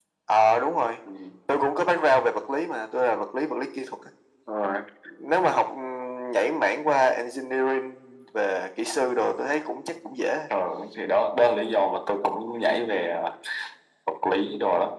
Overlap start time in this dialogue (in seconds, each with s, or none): none